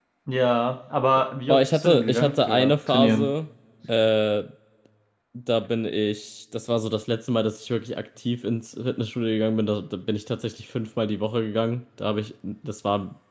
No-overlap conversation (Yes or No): No